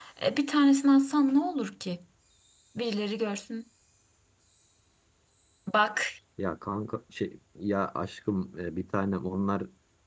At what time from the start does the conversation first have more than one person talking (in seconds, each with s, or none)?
none